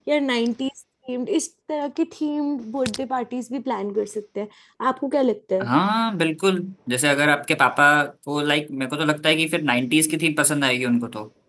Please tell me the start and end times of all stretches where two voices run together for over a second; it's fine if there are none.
none

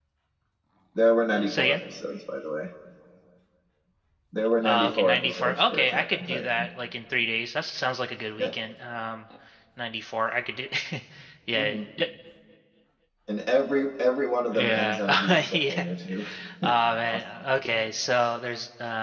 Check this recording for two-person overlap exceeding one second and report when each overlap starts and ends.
4.6-6.7, 14.5-15.8

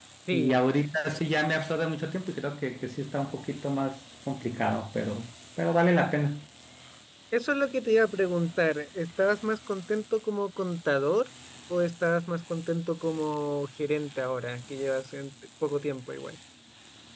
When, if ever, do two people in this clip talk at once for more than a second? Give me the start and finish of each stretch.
none

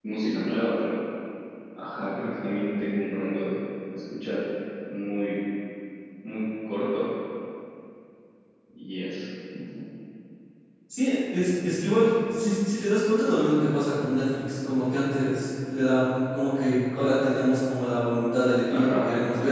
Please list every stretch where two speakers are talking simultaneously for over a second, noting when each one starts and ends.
none

